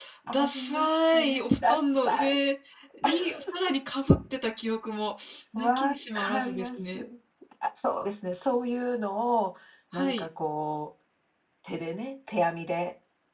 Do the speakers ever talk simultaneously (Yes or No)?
Yes